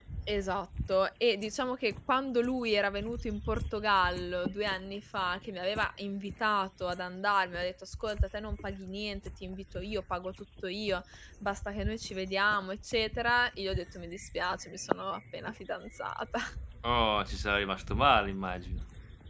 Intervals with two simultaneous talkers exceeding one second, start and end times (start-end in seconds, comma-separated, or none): none